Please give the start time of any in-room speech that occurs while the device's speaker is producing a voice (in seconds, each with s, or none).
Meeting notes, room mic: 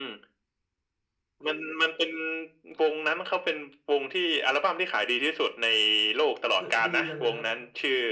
6.6 s